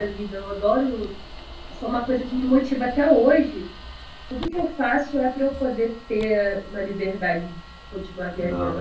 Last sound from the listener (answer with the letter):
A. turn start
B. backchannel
A